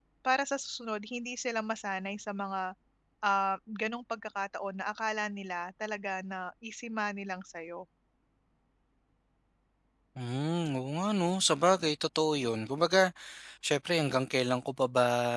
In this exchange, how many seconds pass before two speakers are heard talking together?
none

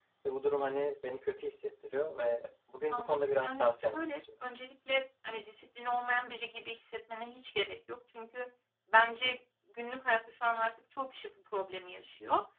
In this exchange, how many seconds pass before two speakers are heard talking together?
3 s

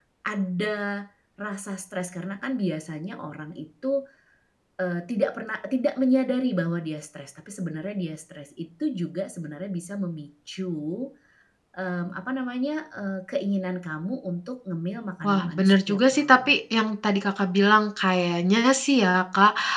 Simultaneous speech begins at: 15 s

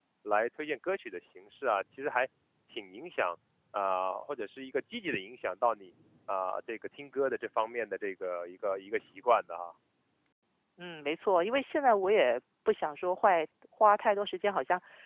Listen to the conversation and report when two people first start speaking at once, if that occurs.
none

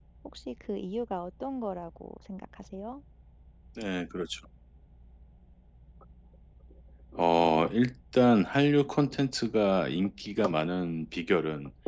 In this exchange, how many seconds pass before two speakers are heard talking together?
none

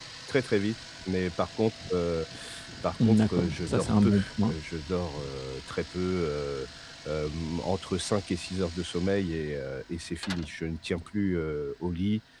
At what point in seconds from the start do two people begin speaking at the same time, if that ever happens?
3 s

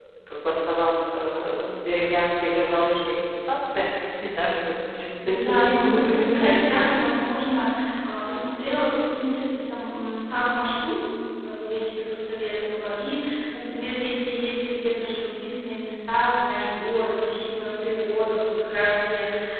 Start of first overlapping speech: 5 s

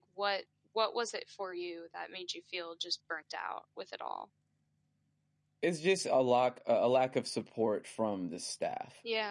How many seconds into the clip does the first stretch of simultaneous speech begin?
none

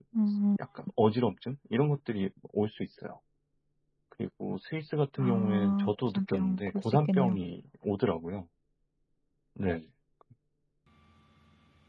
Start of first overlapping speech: 5 s

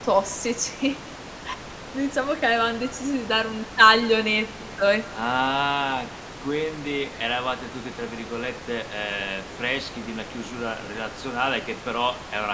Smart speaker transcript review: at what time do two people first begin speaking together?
none

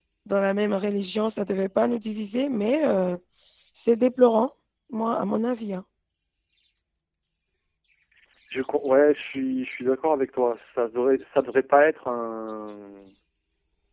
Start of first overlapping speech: none

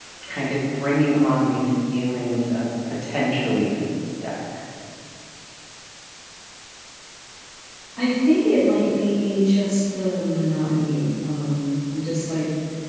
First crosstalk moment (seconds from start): none

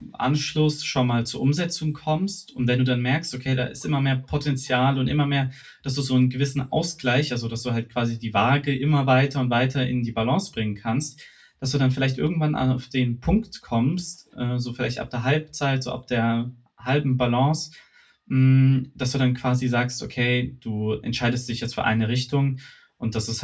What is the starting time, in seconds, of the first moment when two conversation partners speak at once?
none

